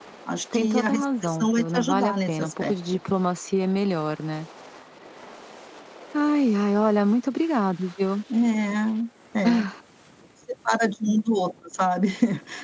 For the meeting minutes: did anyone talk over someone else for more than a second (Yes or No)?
Yes